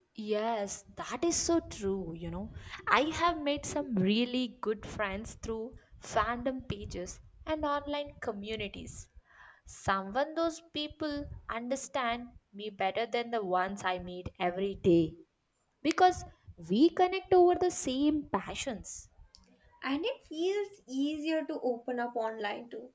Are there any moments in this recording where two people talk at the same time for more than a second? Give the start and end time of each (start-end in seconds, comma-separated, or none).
none